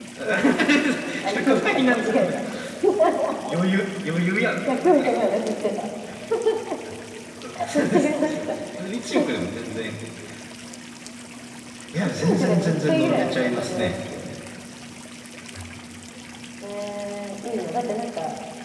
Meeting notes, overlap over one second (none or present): present